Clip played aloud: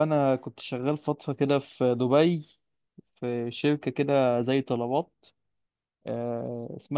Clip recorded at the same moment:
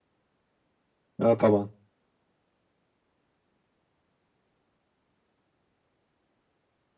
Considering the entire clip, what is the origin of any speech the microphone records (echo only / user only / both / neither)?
user only